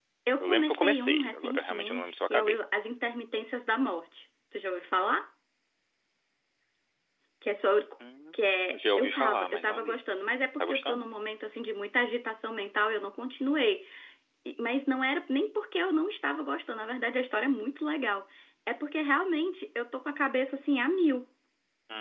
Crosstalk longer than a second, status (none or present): present